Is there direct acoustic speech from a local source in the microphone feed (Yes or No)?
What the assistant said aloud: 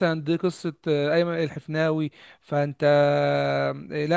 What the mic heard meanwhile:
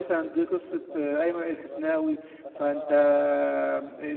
Yes